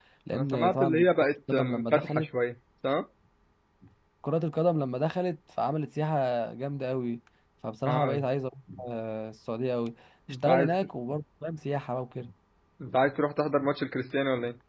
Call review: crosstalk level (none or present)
present